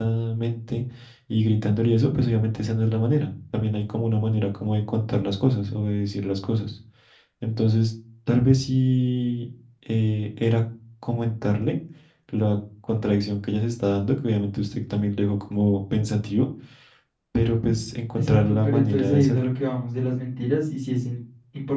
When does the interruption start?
18.2 s

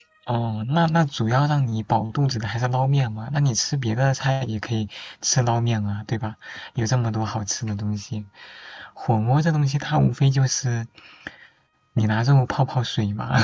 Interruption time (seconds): none

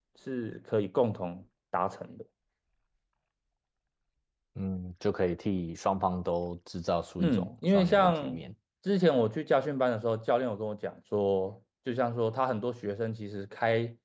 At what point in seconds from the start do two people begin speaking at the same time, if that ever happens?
7.2 s

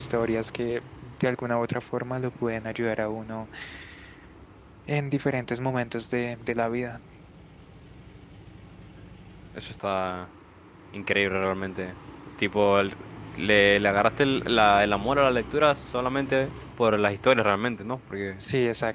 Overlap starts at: none

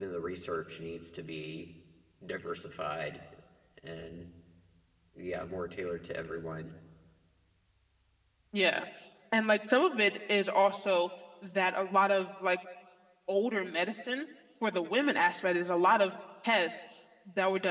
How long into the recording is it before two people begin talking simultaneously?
none

